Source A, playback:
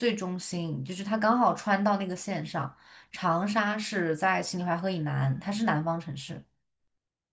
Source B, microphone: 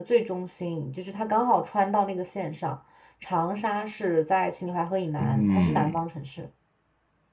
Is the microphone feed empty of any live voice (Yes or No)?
No